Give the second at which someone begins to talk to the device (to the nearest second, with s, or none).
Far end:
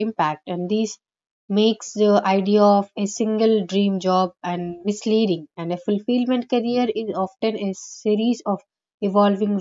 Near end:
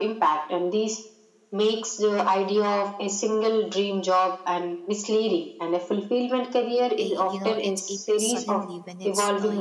7 s